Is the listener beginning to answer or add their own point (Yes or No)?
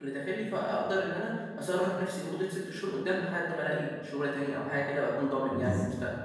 Yes